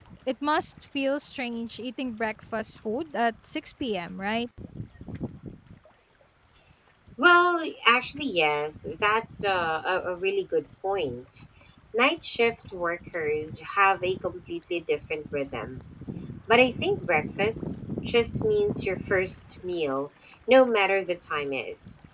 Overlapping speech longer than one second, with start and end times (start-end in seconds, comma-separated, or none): none